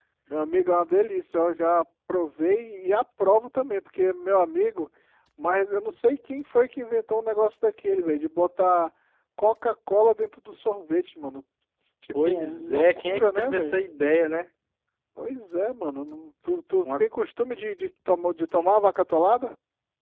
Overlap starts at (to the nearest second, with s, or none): 12 s